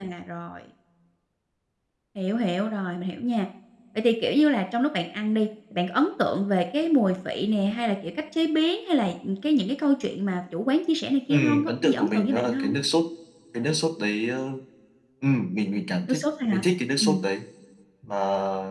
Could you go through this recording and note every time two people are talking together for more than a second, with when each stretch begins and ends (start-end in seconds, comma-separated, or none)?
11.3-12.8